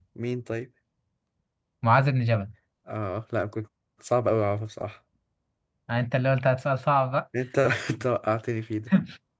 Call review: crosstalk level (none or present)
none